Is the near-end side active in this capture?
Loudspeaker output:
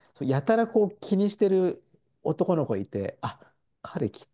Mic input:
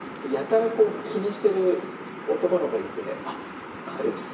No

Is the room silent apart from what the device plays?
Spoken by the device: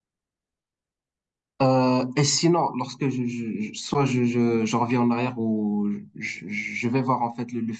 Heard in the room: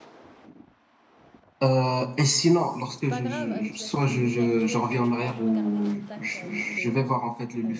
No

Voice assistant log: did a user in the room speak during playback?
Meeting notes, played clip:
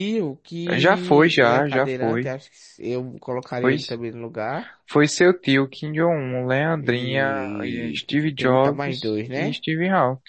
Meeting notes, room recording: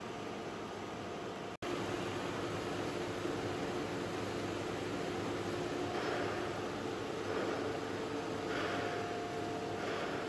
No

